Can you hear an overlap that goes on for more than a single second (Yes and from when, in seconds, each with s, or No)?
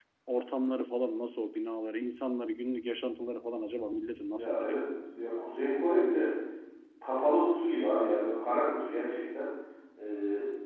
No